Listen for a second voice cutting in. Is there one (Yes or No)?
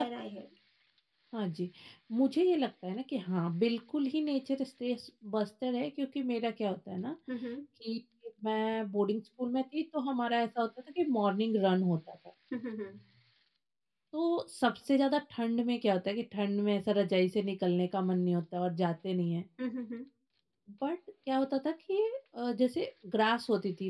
No